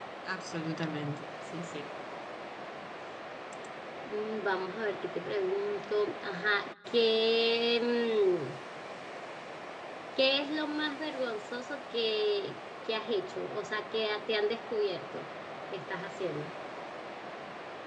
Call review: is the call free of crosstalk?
Yes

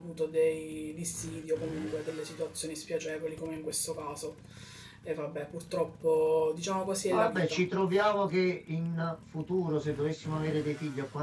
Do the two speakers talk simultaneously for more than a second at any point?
No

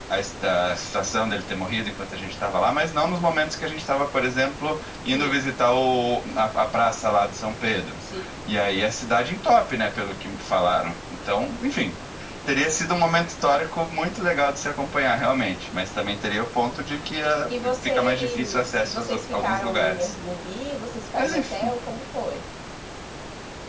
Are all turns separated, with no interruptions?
No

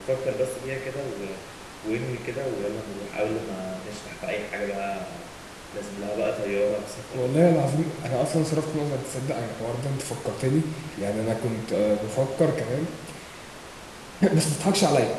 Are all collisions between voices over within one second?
Yes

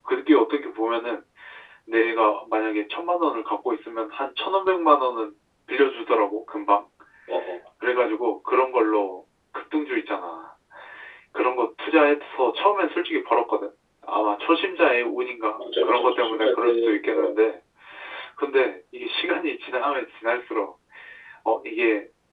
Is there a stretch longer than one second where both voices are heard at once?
Yes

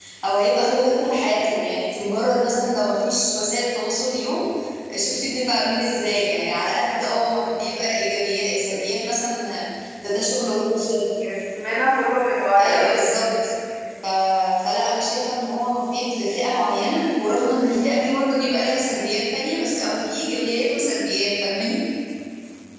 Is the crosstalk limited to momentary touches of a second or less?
Yes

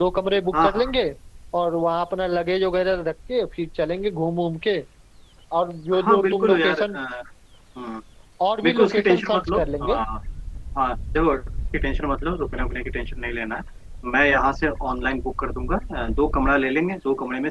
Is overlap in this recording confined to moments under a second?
No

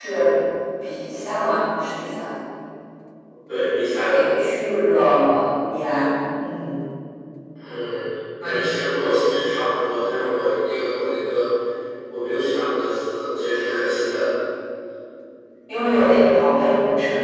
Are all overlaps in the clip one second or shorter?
Yes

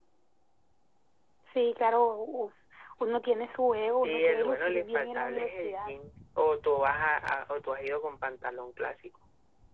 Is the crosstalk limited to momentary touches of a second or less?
No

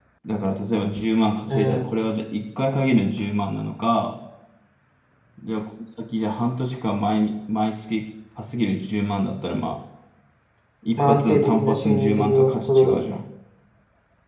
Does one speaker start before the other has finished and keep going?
Yes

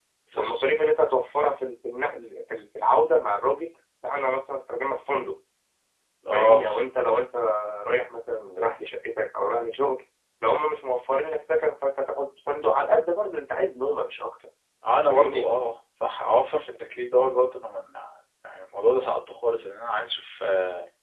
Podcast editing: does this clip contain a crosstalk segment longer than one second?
No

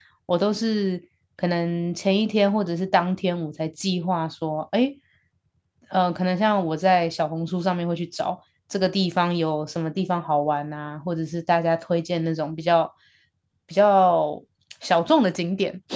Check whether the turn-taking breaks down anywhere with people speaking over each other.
No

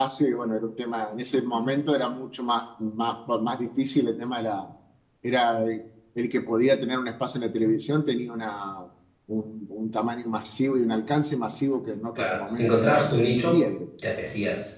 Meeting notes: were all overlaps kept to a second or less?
No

